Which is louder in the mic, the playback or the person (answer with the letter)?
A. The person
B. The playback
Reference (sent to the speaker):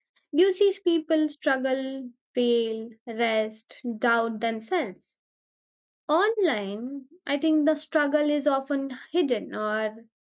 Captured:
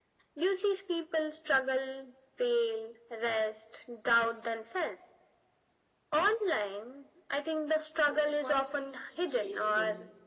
B